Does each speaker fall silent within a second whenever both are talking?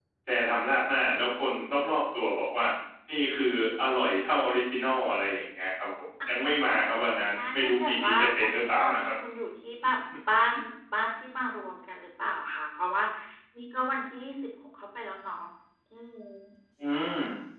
No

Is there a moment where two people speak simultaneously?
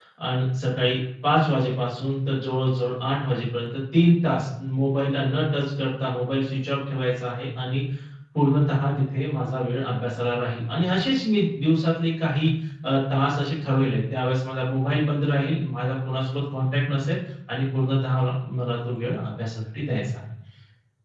No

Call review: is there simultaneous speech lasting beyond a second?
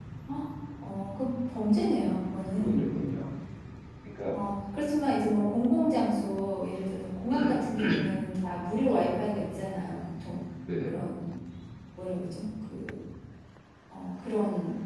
No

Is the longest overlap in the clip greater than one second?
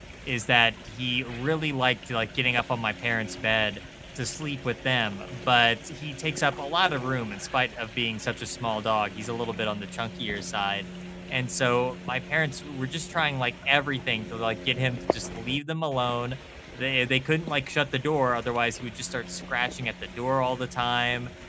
No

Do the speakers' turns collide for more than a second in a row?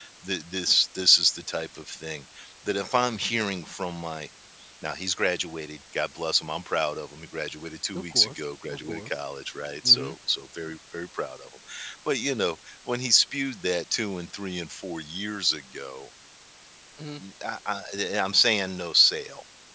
Yes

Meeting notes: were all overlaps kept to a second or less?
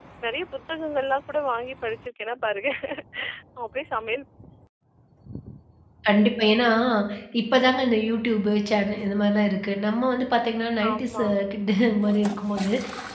Yes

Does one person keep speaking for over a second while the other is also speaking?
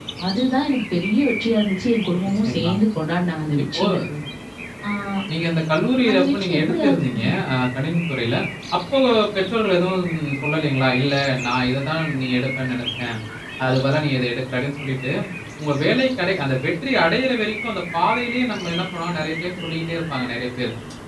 Yes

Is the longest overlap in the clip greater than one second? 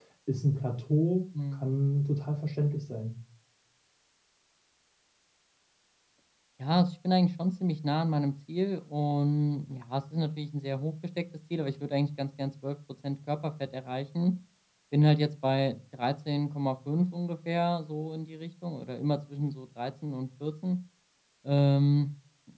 No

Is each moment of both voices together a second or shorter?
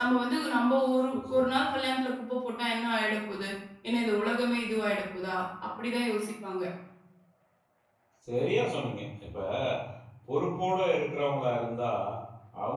Yes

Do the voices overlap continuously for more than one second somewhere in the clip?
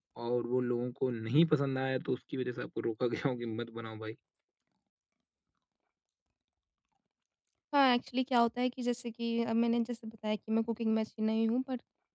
No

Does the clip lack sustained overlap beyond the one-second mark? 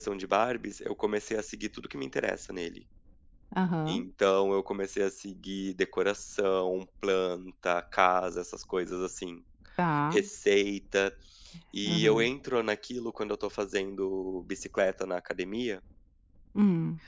Yes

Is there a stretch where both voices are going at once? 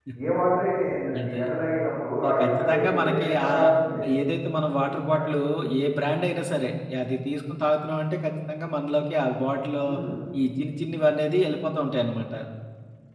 Yes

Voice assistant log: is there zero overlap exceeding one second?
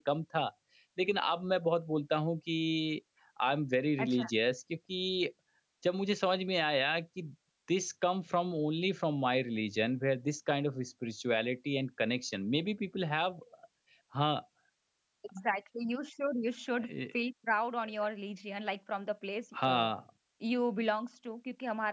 Yes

